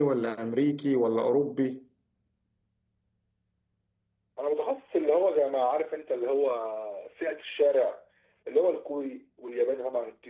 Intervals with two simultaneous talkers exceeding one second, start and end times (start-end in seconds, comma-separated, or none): none